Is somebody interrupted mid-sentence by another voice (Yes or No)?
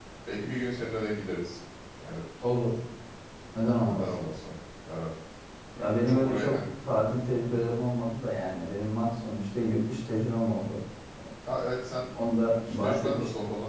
Yes